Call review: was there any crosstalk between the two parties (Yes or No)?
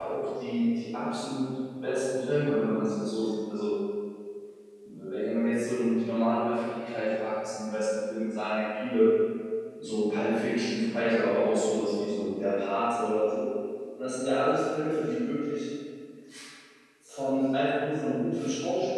No